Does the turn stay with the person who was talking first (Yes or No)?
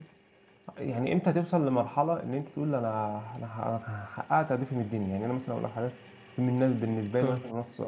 Yes